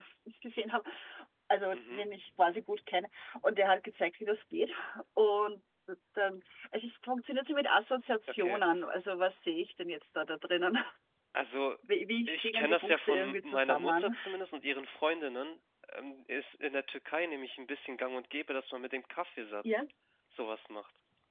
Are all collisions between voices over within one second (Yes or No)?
No